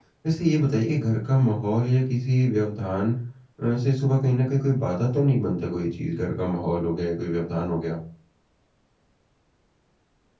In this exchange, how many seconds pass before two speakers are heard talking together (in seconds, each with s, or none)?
none